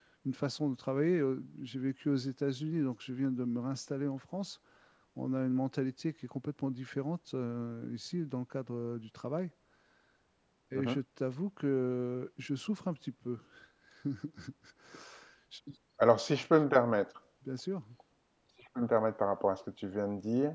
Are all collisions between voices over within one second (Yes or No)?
Yes